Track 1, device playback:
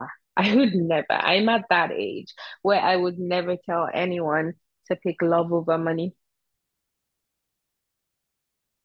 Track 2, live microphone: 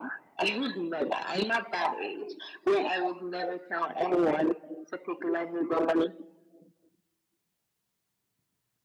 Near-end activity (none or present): none